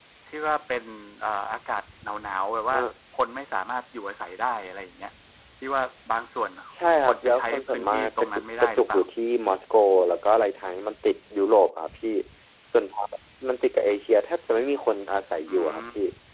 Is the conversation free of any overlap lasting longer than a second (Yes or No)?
No